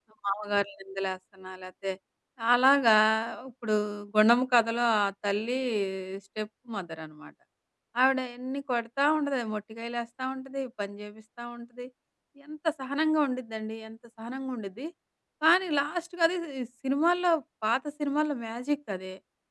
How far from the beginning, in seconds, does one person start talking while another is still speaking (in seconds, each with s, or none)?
none